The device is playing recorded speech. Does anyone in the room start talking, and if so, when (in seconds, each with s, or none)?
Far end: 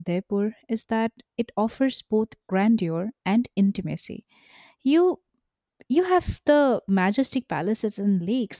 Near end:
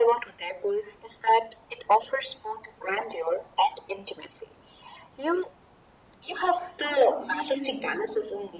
6.8 s